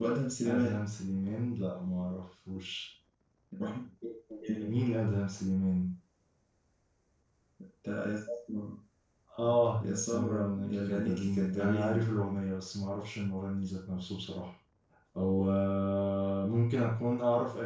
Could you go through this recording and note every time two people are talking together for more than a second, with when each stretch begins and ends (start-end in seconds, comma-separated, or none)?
9.8-12.1